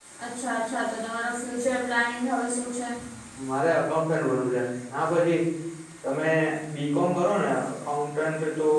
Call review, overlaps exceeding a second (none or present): none